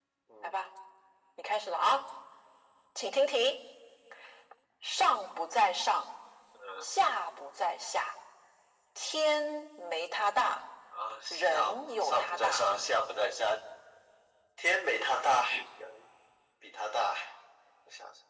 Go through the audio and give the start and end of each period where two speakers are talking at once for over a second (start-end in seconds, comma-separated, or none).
11.3-12.6